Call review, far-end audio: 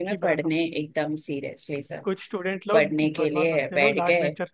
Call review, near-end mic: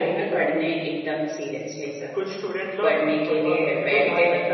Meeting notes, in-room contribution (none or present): none